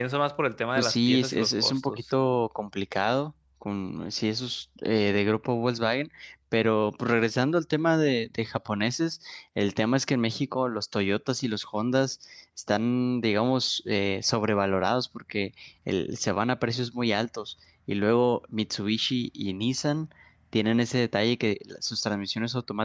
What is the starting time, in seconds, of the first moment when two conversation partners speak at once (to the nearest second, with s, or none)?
1 s